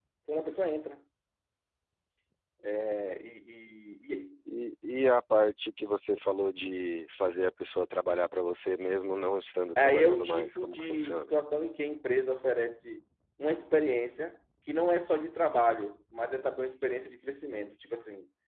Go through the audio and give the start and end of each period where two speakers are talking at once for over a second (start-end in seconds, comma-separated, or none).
9.8-11.3